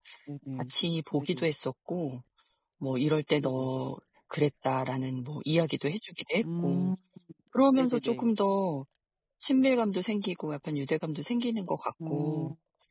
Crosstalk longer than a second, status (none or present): none